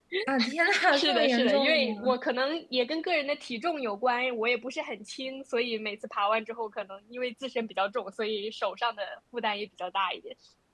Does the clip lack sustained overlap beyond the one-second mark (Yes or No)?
No